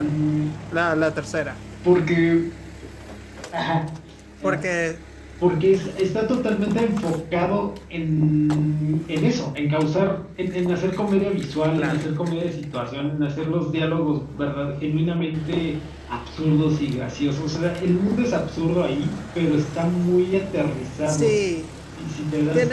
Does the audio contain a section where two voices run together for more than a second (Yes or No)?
No